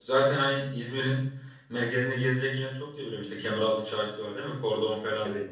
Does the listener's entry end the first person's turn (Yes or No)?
Yes